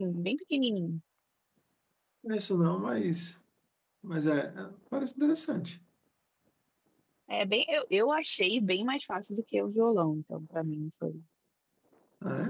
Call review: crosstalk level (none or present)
none